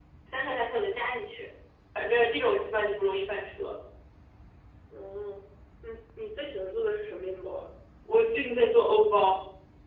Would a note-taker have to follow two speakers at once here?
No

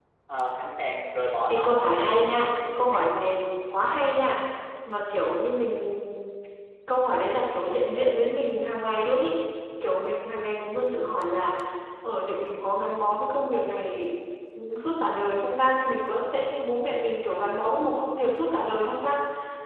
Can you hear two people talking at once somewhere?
Yes, from 1.5 s

